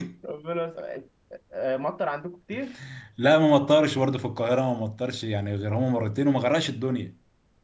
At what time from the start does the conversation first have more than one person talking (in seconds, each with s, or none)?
none